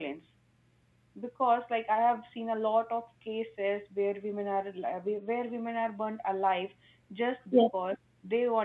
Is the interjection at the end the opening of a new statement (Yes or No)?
No